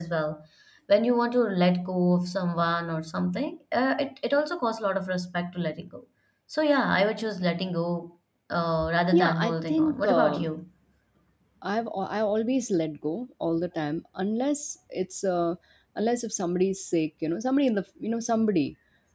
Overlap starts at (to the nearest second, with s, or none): 9 s